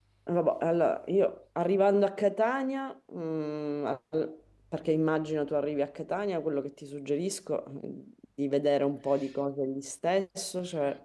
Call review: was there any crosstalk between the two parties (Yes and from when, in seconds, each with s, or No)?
No